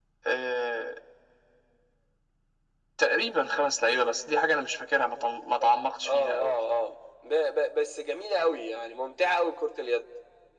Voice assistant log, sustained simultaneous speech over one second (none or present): none